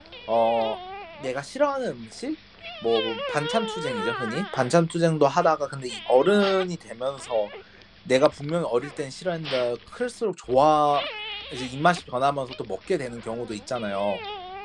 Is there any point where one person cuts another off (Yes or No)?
No